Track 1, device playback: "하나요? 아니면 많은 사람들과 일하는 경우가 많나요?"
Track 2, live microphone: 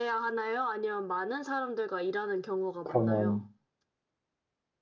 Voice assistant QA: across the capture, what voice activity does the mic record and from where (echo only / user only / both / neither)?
both